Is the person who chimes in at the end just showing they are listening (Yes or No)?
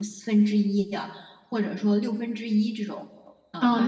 No